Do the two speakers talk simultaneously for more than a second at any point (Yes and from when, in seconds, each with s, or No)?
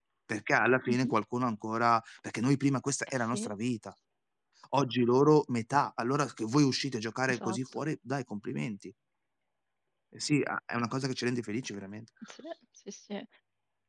No